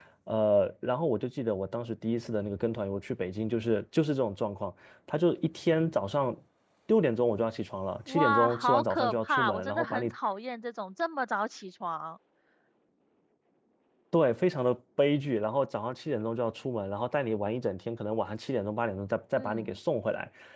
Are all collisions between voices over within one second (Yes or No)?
No